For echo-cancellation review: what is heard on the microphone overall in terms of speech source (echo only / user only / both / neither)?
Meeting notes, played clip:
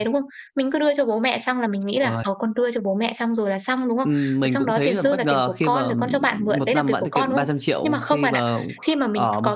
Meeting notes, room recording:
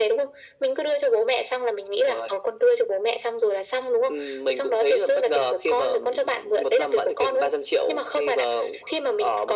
echo only